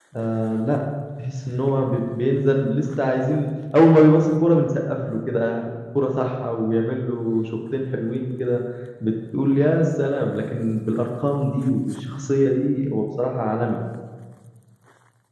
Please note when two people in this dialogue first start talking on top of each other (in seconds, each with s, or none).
none